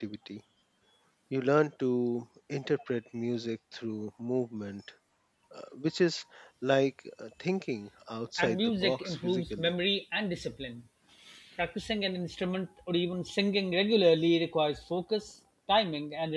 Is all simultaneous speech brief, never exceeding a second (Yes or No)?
No